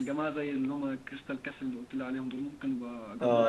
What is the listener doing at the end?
taking over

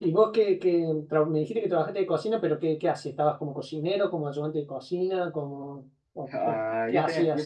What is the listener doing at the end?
taking over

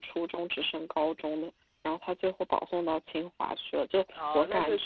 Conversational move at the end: taking over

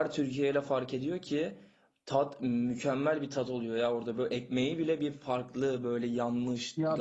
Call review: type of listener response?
taking over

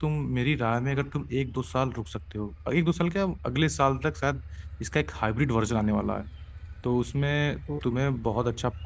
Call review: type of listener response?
listening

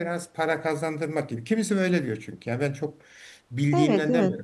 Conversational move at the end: taking over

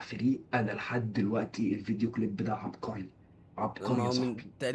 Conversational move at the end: taking over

